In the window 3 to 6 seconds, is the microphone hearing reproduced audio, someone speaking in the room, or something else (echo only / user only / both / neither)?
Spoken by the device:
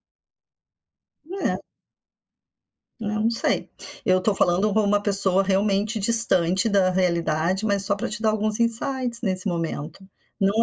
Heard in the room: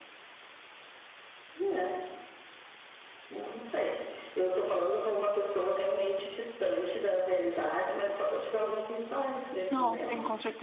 echo only